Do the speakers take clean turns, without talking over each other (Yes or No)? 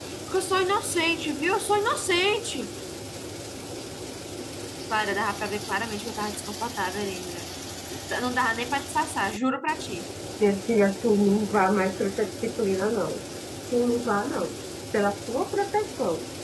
Yes